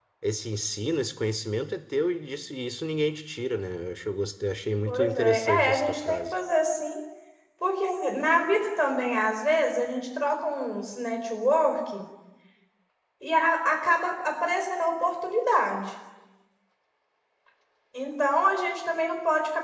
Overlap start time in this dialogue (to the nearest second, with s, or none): 5 s